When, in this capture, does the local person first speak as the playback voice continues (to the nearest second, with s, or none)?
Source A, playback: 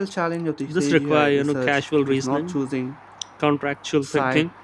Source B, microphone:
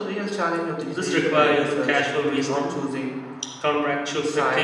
none